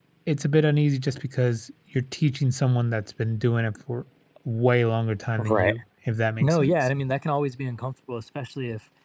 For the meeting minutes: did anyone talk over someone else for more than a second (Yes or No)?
No